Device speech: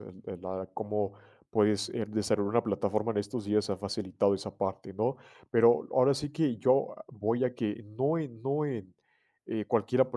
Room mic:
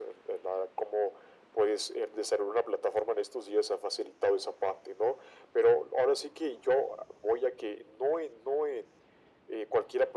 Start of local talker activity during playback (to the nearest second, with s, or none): none